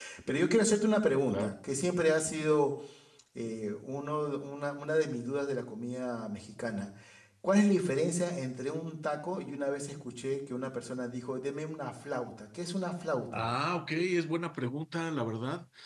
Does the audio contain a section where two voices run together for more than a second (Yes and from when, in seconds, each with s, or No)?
No